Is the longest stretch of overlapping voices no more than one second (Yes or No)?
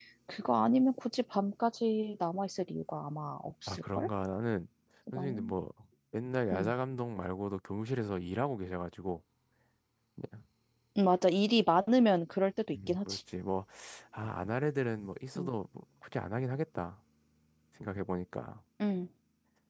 Yes